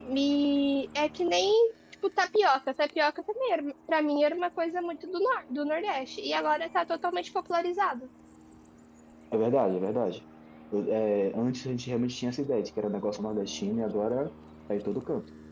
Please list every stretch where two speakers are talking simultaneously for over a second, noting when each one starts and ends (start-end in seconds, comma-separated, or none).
none